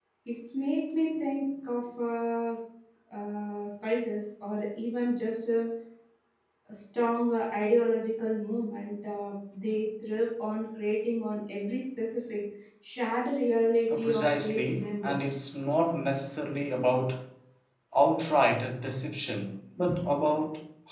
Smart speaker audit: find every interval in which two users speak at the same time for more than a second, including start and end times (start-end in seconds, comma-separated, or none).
14.0-15.2